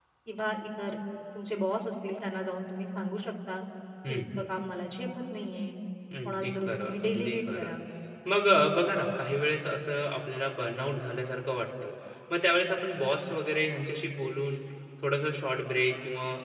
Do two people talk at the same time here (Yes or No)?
Yes